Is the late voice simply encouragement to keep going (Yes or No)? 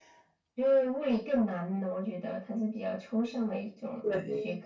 No